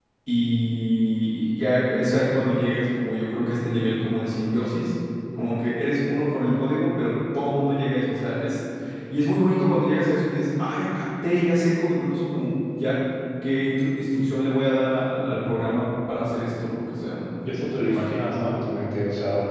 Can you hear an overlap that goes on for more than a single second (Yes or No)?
No